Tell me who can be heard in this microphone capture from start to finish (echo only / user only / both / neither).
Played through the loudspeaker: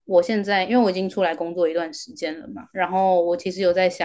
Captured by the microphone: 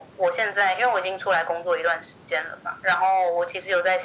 echo only